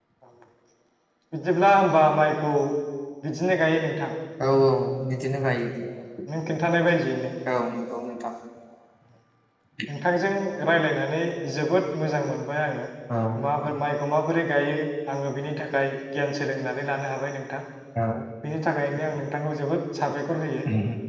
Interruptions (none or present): none